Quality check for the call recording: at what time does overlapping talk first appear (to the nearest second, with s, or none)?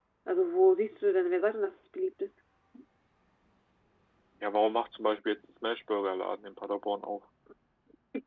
none